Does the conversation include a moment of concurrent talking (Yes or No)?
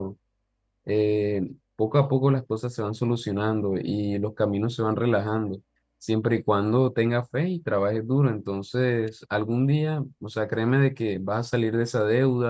No